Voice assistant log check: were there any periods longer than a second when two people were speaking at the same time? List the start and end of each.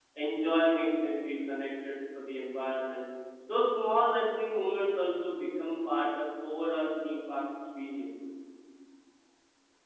none

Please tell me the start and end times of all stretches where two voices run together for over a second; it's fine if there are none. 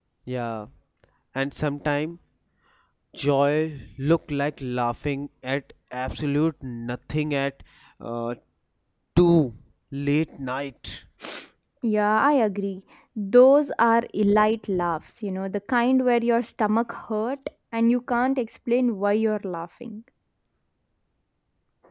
none

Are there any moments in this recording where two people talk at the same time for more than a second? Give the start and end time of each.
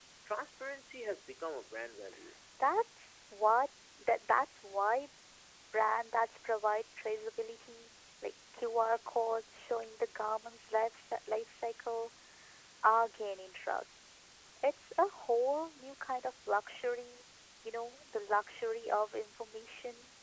none

